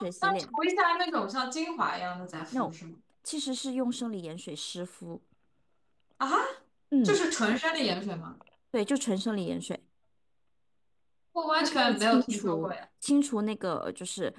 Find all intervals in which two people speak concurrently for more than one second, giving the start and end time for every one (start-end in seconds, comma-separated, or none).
11.6-12.8